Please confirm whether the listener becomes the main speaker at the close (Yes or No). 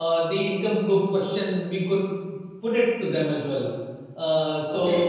Yes